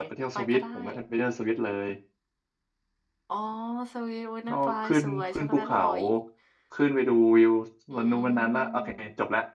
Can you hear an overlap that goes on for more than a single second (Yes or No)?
Yes